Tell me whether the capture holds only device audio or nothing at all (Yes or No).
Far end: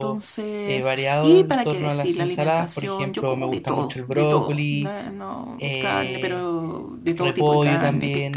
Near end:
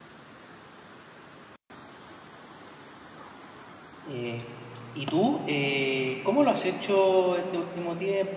No